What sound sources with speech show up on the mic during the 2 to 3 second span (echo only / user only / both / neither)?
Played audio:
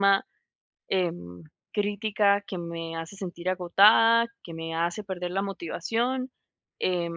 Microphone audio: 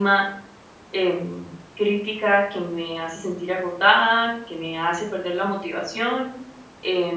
echo only